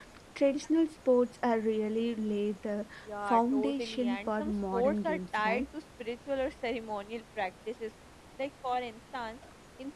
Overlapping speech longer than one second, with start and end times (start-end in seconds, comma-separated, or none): 3.3-5.7